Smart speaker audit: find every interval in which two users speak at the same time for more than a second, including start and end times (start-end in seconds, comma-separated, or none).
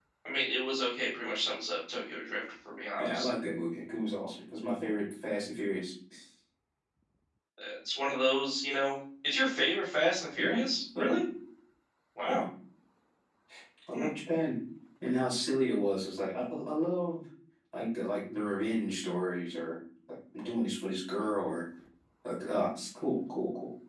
none